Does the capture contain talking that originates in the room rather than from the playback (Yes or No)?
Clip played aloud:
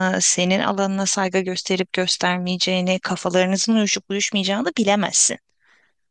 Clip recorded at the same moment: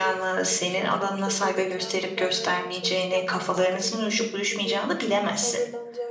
Yes